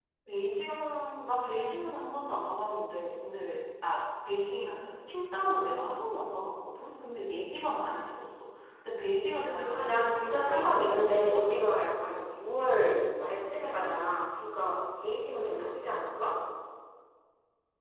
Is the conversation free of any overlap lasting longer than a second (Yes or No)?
No